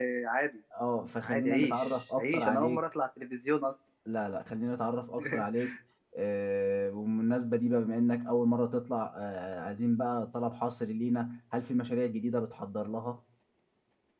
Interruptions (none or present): present